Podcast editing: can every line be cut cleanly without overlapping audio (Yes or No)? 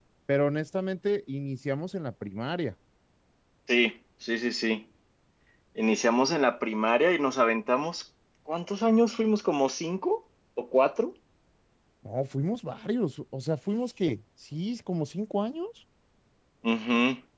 Yes